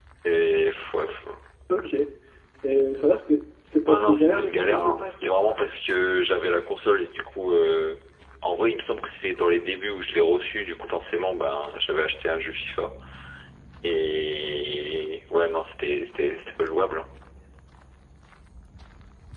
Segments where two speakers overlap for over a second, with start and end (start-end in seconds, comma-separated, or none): 3.9-5.5